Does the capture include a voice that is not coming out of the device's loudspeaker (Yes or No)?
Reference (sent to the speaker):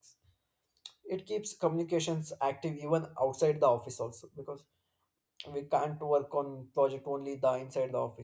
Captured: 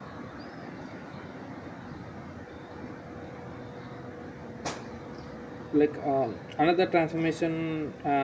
Yes